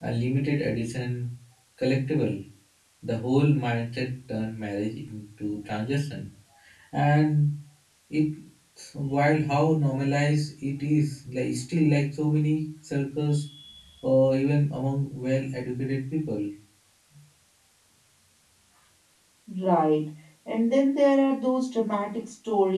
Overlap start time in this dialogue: none

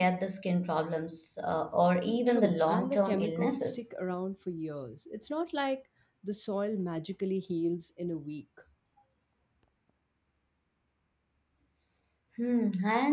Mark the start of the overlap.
2.3 s

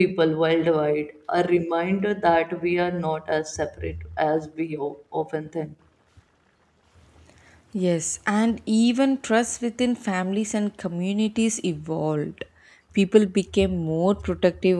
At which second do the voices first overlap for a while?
none

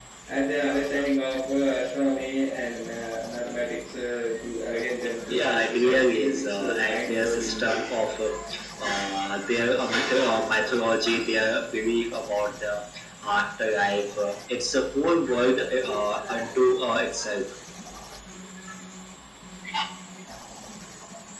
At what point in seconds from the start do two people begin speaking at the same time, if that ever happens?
5.2 s

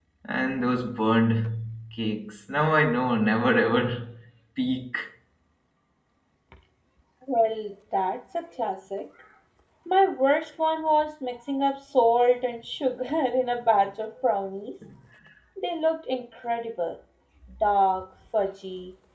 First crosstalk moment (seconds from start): none

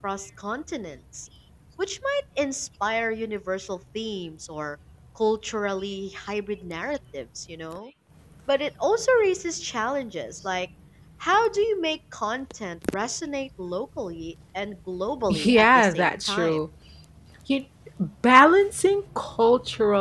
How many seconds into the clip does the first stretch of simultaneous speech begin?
15.3 s

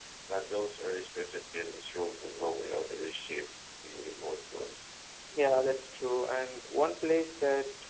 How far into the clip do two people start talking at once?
none

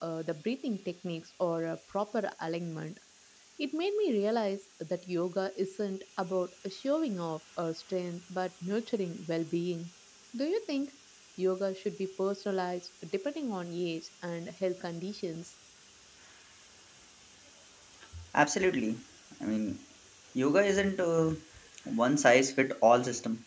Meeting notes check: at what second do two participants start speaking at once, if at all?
none

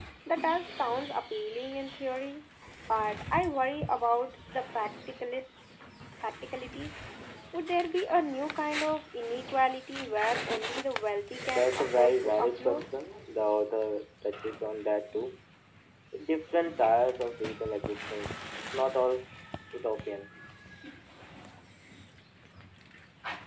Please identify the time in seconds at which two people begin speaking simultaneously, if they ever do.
11.6 s

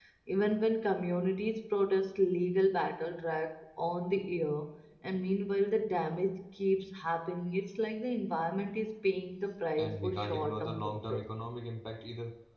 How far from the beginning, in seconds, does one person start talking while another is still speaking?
9.8 s

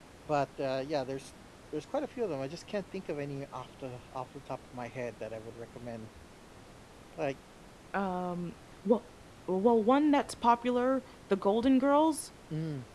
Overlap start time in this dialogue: none

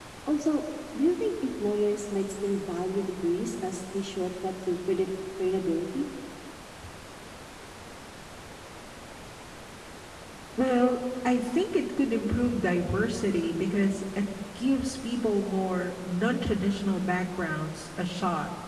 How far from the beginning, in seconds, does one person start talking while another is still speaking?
none

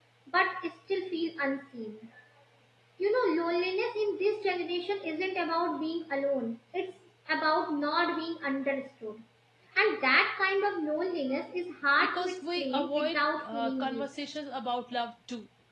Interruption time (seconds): 12.0 s

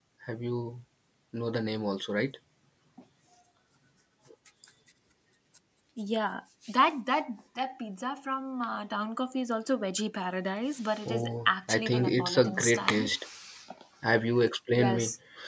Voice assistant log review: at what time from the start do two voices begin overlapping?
11.1 s

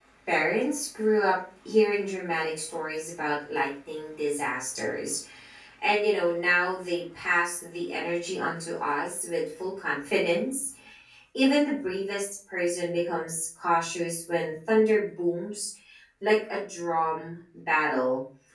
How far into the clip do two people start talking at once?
none

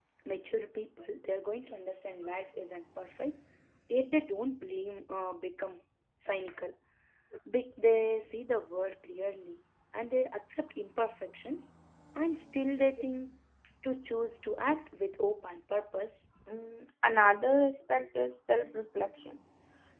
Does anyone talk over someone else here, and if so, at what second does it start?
none

